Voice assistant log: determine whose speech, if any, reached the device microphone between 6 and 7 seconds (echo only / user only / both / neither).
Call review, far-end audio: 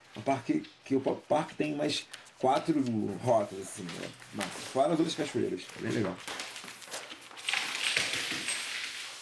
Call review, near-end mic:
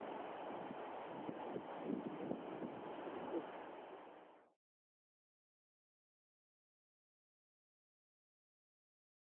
neither